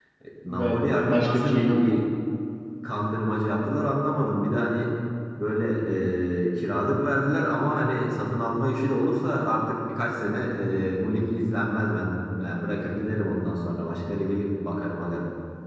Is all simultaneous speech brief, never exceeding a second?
No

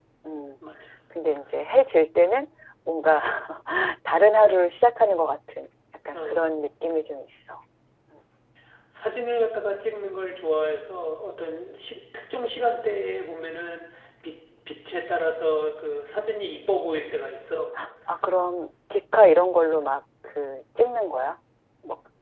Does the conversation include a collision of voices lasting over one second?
No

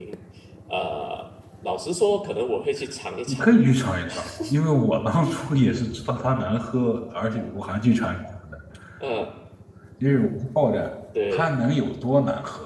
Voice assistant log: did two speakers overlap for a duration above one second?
No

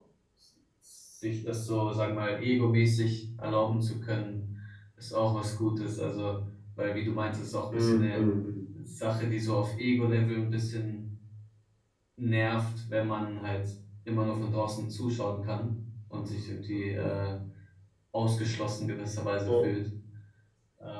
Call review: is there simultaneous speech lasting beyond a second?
No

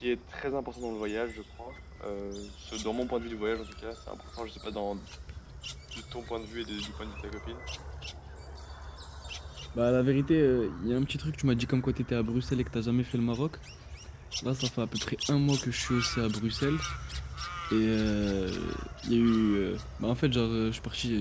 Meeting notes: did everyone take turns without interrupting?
Yes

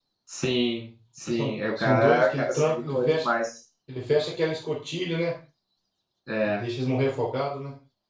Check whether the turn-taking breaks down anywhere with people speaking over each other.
Yes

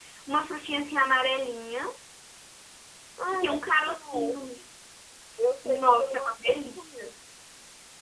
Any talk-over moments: Yes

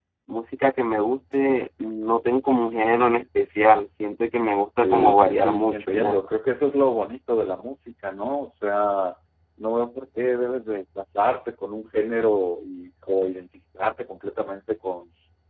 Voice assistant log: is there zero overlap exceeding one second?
No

